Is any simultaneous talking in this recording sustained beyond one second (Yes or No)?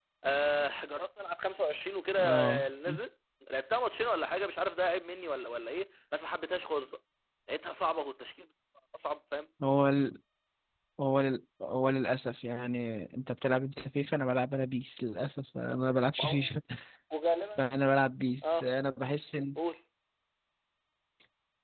No